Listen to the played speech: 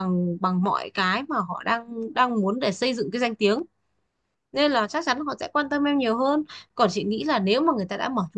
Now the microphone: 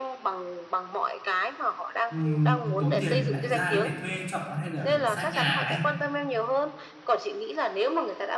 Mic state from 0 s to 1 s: echo only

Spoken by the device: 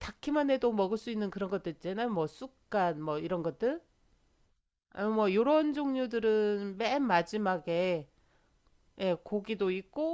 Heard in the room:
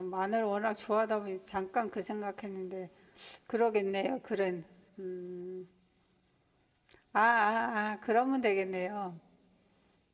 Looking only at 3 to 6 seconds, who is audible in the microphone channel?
user only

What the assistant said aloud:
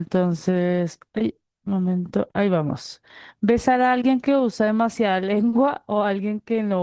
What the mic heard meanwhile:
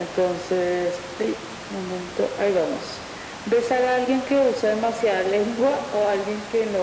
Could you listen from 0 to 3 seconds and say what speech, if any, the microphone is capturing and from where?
echo only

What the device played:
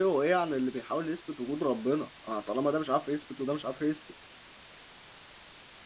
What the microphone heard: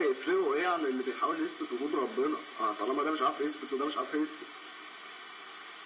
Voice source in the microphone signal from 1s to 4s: echo only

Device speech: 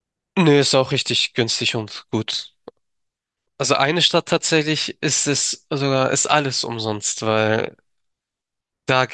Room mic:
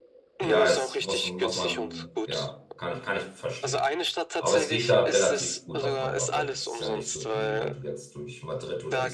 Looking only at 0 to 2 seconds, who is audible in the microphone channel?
both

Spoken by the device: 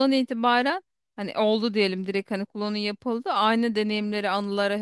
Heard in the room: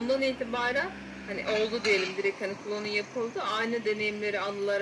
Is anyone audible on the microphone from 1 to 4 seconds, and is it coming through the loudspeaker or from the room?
echo only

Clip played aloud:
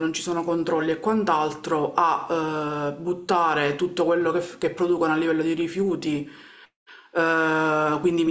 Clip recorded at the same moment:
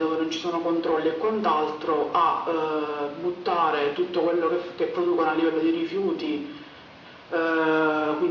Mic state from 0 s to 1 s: echo only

